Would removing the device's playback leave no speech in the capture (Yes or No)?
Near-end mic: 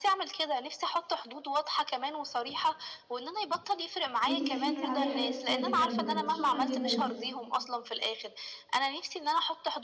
No